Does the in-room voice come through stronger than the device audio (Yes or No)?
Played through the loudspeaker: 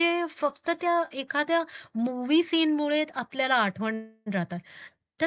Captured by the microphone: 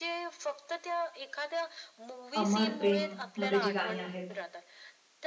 Yes